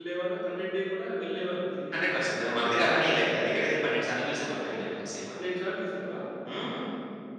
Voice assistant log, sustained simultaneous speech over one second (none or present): none